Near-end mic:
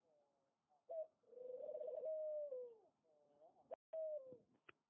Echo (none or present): none